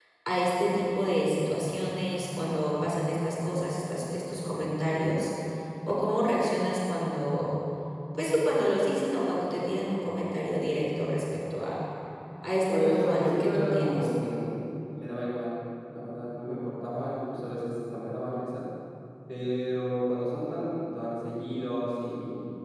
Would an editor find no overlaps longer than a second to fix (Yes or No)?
No